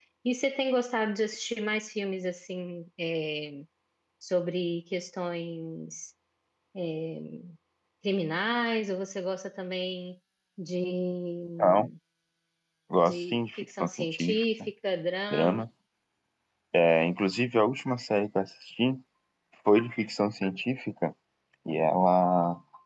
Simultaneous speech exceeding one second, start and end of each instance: 13.1-14.7

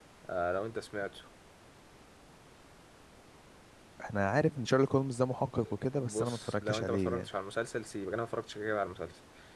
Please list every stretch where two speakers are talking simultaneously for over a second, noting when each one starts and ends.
6.0-7.3

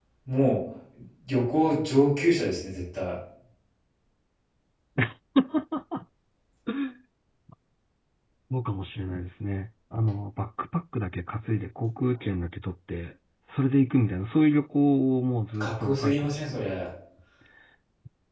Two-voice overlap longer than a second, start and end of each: 15.6-16.8

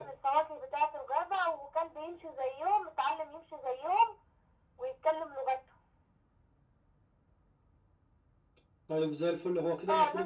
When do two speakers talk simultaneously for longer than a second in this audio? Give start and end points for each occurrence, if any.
none

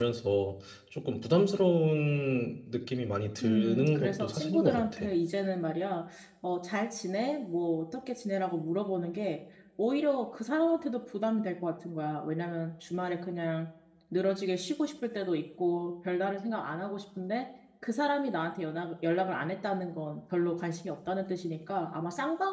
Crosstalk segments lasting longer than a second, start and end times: 3.4-5.1

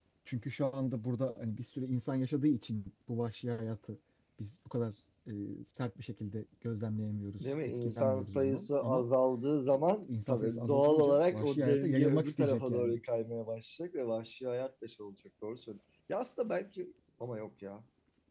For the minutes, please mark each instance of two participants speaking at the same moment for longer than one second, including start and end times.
7.4-9.1, 10.1-13.0

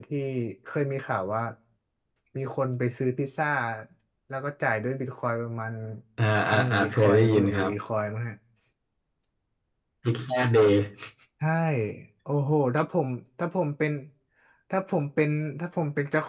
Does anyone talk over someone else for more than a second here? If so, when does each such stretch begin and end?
6.5-7.7

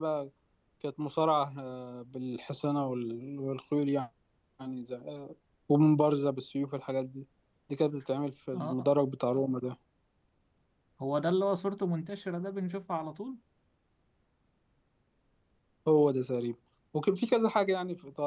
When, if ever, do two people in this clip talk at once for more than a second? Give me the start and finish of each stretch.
none

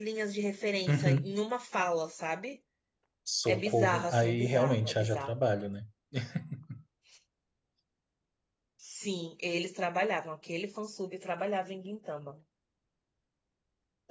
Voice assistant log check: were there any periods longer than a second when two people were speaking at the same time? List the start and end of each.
3.5-5.3

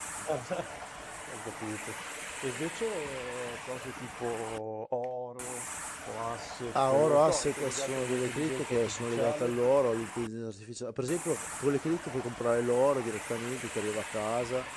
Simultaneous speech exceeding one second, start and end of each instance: 6.8-9.6

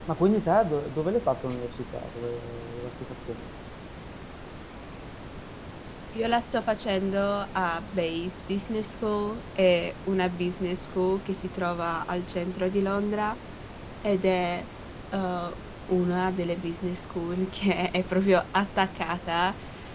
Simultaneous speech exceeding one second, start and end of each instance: none

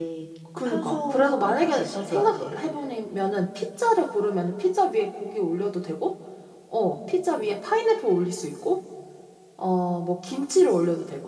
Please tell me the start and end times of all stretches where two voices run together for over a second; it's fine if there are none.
0.7-2.6

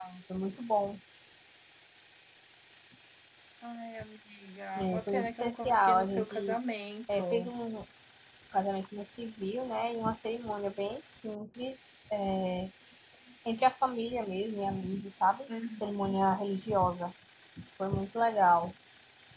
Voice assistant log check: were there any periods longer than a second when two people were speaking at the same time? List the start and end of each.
4.8-6.6

